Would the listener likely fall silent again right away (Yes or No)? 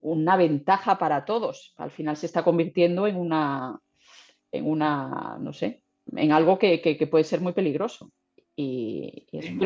Yes